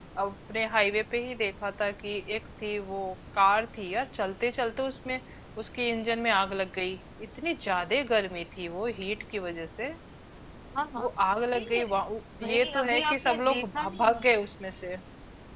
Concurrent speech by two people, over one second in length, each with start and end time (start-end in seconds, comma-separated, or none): 12.4-14.1